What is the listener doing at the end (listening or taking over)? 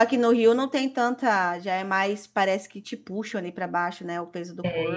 taking over